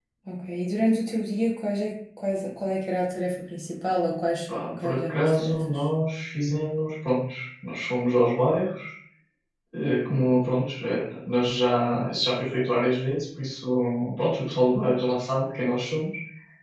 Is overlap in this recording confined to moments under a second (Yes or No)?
No